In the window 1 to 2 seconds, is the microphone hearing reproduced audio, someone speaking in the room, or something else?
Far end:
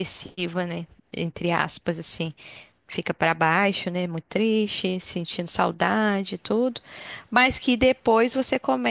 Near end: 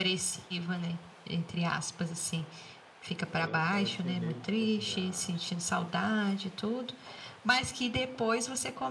echo only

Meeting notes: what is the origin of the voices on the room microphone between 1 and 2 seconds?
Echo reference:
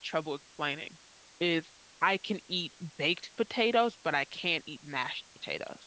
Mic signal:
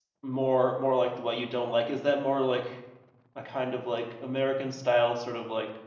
user only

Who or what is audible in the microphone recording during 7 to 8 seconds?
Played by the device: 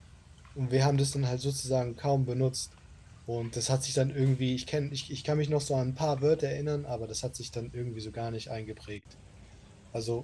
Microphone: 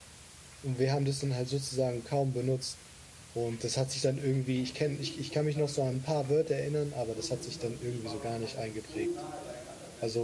both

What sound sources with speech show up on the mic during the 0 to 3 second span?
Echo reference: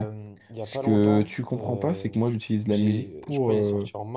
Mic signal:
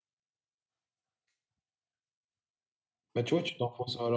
neither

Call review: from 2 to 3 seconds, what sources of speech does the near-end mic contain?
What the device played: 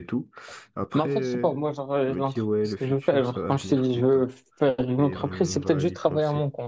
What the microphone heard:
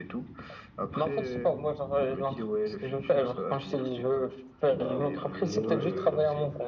echo only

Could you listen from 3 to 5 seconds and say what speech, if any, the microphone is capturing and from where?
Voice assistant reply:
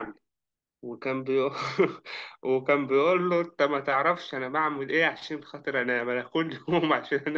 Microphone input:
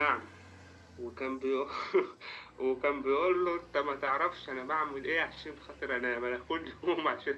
echo only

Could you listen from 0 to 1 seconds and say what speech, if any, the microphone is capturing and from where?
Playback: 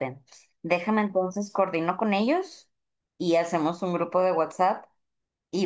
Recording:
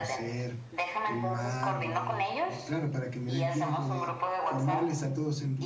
both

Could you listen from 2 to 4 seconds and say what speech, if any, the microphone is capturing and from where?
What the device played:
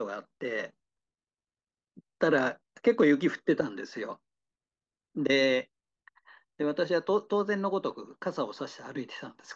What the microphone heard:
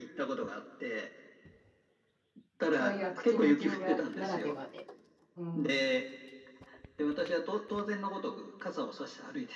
both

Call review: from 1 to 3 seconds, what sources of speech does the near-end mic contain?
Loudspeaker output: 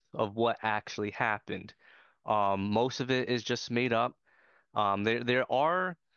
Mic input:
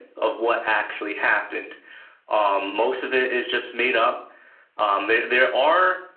echo only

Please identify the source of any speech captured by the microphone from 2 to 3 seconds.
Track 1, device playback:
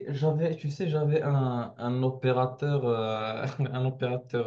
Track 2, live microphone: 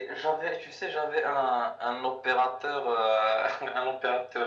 echo only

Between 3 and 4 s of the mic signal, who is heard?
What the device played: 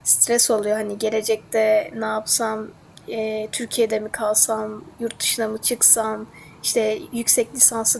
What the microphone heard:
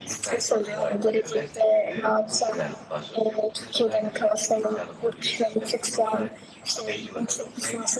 both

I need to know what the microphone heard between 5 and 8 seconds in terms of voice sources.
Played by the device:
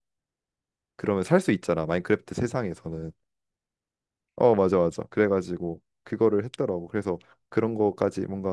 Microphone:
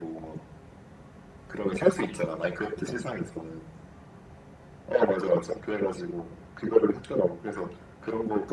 echo only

